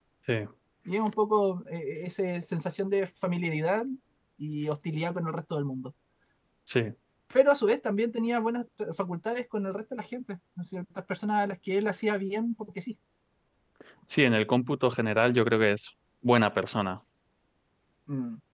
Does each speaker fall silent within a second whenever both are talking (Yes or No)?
Yes